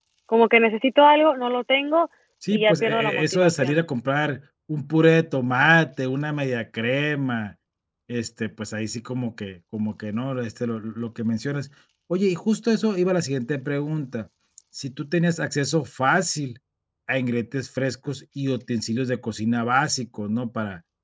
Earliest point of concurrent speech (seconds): 3 s

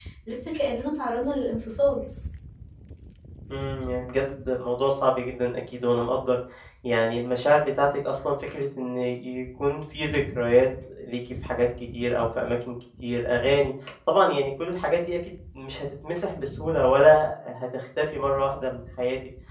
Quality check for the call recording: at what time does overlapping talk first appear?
none

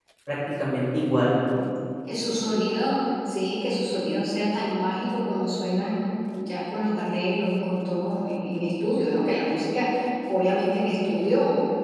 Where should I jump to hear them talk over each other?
none

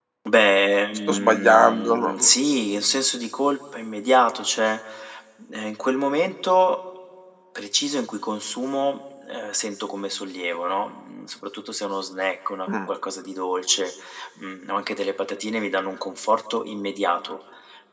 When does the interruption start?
1 s

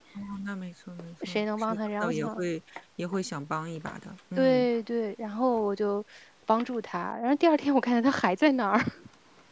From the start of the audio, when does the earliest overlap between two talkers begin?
1 s

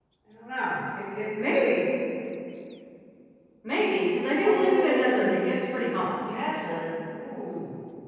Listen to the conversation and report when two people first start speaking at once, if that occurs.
4 s

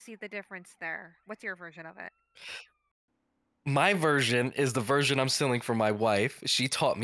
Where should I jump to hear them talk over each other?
none

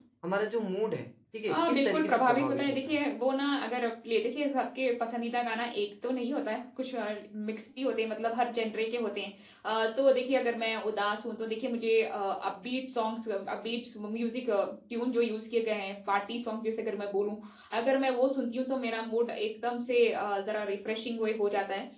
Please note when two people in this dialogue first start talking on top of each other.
1 s

